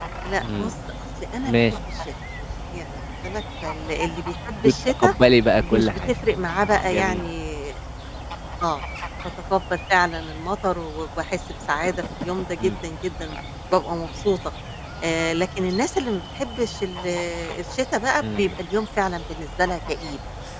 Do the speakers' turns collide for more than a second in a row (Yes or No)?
No